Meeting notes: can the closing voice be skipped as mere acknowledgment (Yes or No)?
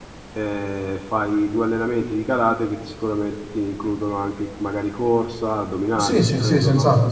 No